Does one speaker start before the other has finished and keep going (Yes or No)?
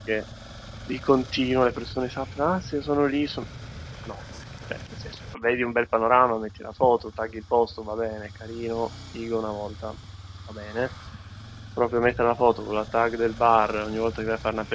No